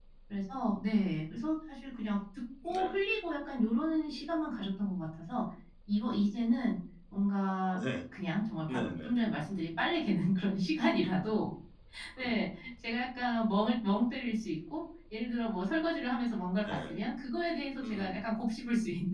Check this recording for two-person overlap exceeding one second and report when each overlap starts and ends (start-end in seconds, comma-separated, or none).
none